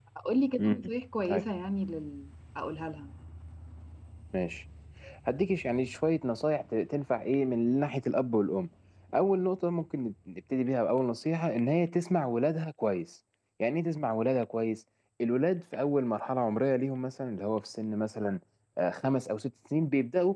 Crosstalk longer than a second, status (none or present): none